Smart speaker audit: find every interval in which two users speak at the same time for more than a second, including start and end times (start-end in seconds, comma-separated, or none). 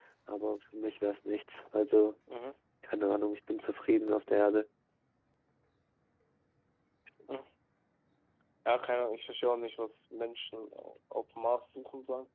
none